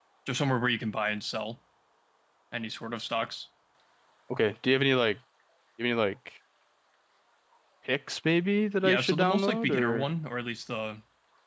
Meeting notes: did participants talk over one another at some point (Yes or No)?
Yes